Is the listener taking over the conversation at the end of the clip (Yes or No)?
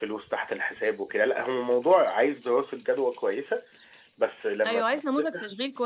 Yes